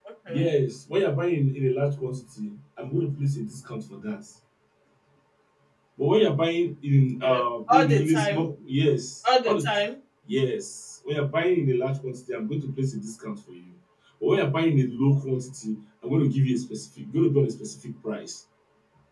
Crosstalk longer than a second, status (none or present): present